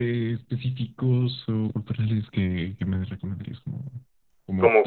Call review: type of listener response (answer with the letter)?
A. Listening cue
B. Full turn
A